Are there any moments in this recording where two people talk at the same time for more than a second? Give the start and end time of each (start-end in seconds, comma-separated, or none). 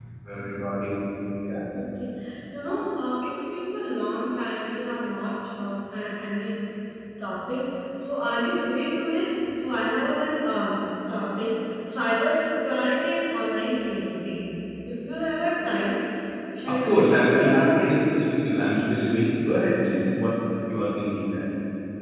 16.7-18.0